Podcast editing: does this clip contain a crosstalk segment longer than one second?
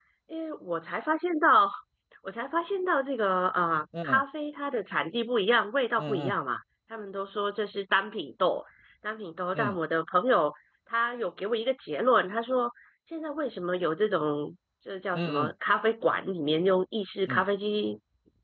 No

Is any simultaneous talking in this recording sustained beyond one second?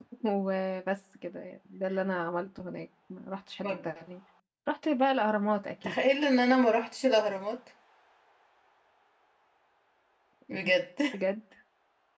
No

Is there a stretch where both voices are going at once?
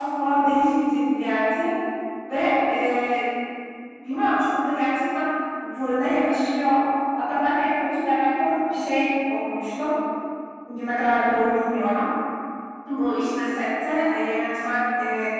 No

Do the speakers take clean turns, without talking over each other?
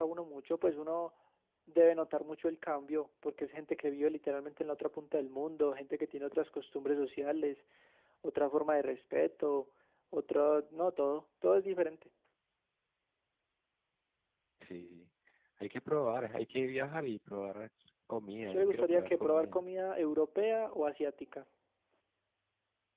No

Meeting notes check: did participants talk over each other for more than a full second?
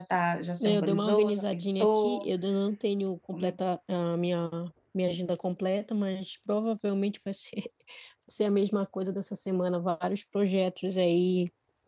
Yes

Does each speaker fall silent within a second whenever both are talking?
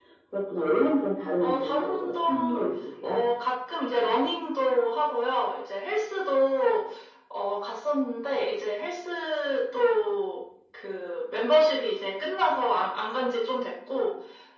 No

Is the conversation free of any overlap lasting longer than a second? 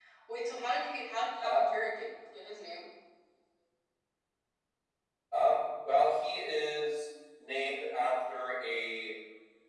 Yes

